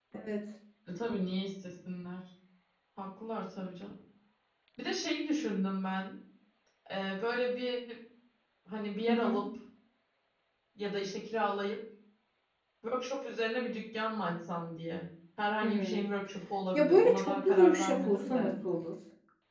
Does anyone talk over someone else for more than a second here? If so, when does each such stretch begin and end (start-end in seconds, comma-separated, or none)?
16.7-18.5